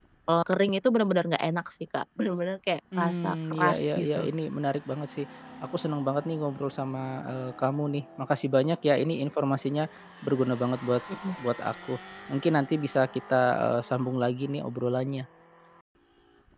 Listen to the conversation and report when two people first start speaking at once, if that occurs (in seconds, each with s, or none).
2.9 s